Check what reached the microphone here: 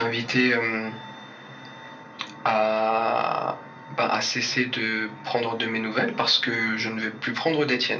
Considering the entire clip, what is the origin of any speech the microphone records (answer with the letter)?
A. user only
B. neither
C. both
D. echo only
D